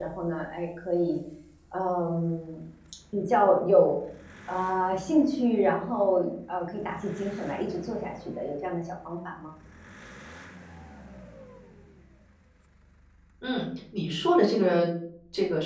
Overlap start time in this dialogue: none

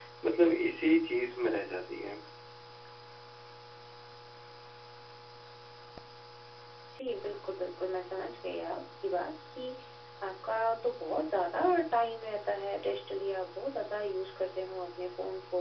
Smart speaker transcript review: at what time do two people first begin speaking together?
none

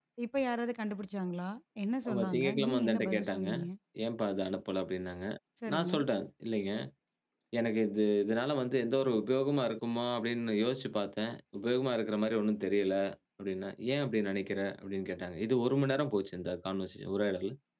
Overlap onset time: 2.1 s

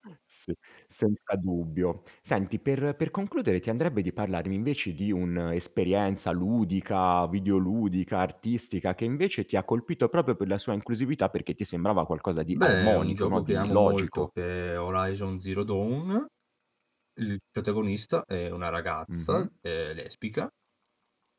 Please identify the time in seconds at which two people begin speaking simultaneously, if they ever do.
12.5 s

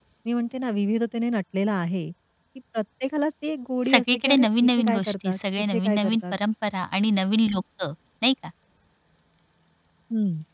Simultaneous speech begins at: 3.8 s

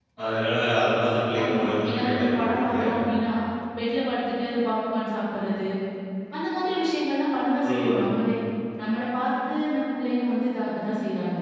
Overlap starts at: 1.4 s

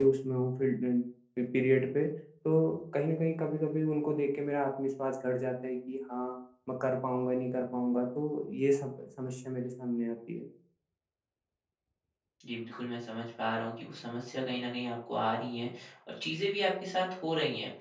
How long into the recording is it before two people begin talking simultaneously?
none

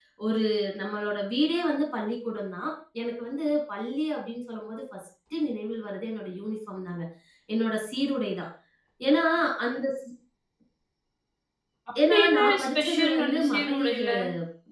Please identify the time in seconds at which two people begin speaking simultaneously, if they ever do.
12.1 s

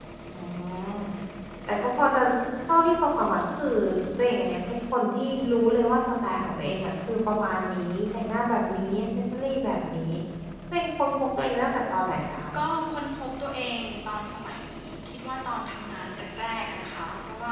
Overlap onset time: none

